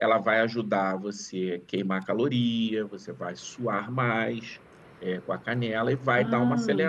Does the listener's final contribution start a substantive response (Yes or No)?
No